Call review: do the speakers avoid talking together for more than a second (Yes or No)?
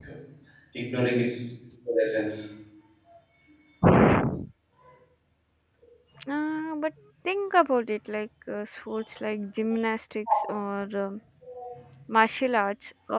Yes